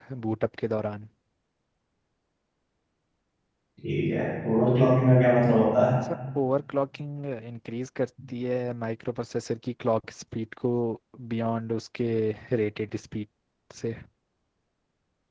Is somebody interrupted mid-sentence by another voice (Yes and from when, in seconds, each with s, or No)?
No